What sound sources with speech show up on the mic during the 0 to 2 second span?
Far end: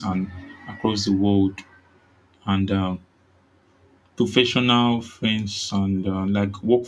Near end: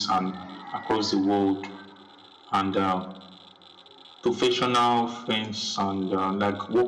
echo only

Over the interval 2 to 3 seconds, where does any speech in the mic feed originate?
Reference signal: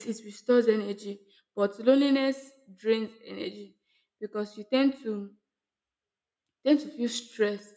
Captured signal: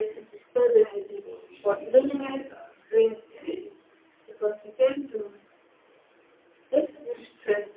both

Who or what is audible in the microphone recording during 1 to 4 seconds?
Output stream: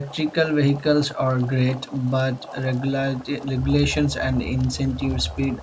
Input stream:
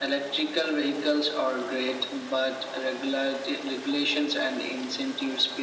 echo only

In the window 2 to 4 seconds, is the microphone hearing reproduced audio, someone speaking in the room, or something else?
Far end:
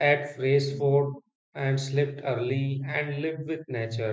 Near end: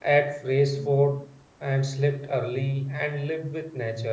echo only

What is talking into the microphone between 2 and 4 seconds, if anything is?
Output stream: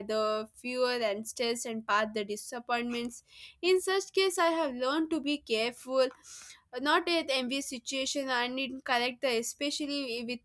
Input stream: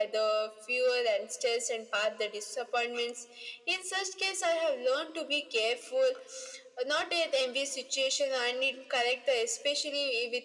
echo only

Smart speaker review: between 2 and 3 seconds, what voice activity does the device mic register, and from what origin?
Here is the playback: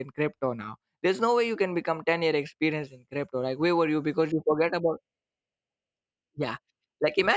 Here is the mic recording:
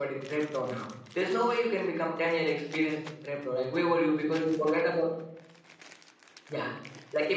echo only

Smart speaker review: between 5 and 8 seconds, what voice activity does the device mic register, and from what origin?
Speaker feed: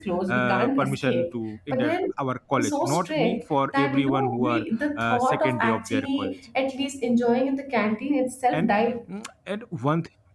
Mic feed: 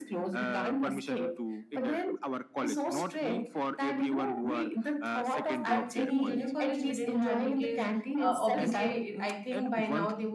both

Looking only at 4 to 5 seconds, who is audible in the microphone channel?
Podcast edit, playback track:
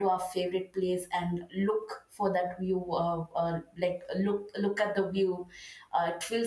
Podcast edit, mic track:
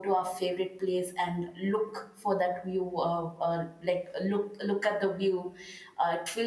echo only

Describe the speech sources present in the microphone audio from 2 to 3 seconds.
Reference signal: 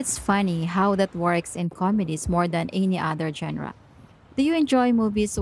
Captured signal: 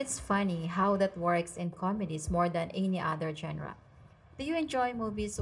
echo only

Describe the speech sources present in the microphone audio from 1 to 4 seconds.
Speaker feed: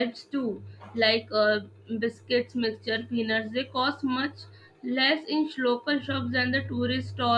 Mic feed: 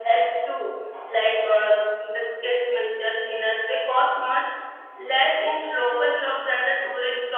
echo only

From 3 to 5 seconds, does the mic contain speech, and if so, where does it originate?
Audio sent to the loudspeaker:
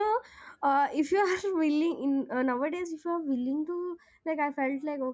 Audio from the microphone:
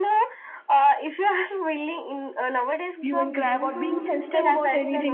both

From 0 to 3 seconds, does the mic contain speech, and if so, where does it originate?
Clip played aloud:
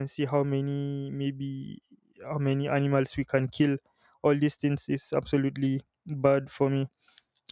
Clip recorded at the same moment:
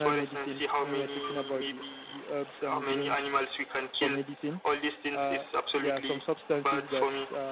both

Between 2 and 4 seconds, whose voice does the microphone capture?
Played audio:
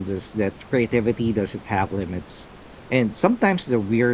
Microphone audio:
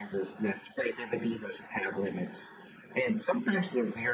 echo only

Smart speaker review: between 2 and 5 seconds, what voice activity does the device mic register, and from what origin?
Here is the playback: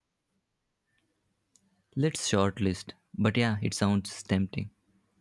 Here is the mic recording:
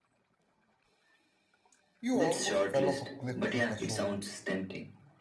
both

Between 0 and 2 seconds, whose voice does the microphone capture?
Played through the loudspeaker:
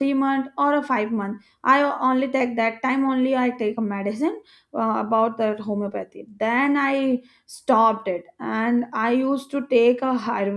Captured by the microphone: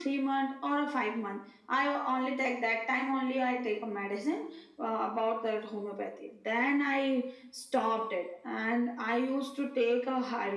echo only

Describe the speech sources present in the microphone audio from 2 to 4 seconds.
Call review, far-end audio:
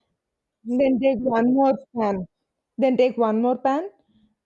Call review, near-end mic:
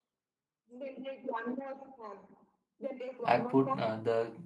both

